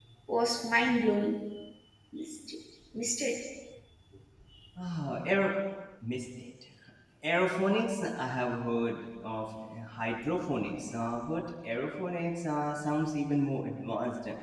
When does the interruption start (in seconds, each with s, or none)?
none